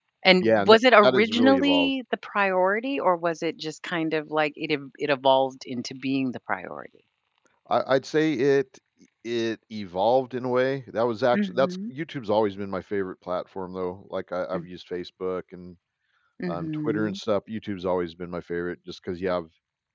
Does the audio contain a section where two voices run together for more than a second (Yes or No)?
Yes